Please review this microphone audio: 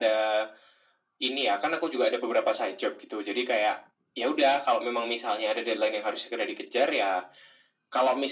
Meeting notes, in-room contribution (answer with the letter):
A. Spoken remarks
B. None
B